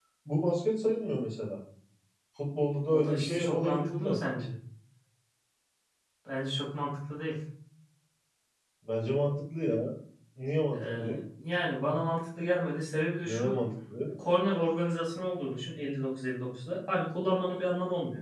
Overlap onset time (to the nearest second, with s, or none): 3 s